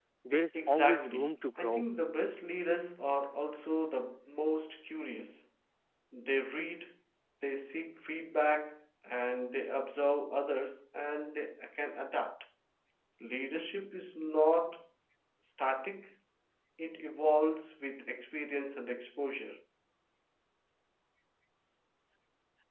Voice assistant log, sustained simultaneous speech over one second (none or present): present